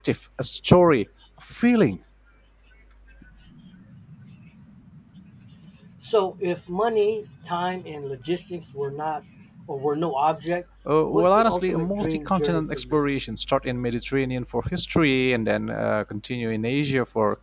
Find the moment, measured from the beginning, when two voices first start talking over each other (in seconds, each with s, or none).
11.1 s